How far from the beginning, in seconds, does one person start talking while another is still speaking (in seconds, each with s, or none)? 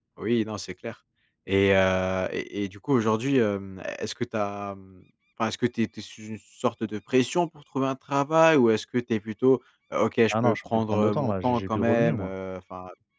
10.3 s